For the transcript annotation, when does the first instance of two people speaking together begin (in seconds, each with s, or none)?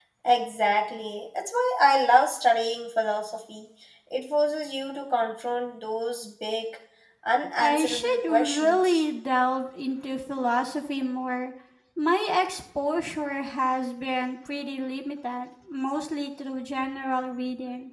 7.6 s